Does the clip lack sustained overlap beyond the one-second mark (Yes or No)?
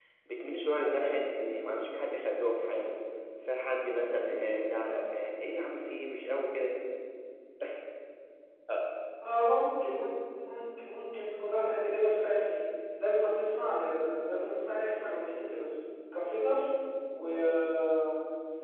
Yes